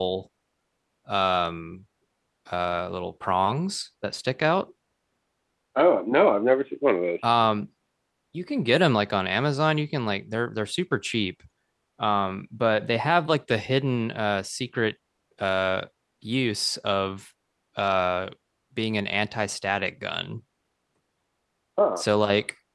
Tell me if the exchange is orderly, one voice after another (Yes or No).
Yes